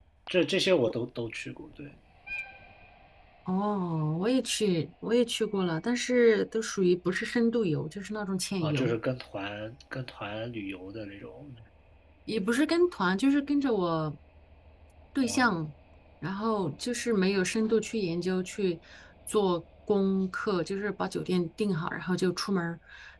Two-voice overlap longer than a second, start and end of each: none

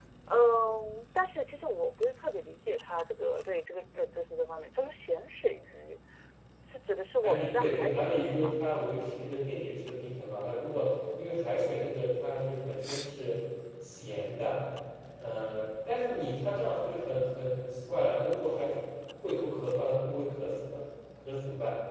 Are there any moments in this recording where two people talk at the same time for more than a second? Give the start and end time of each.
7.2-8.6

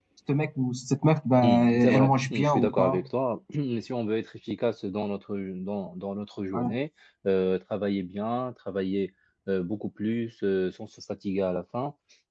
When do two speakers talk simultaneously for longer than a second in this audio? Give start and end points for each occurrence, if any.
1.4-3.0

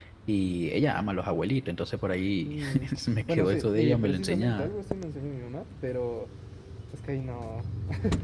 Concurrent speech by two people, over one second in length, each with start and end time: 3.3-4.7

